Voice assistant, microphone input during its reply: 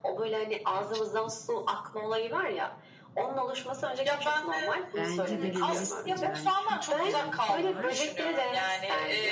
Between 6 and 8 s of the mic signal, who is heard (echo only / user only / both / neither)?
both